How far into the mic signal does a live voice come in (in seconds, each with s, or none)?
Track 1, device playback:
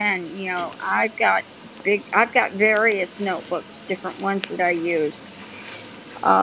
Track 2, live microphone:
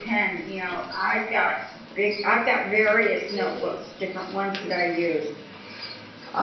2.9 s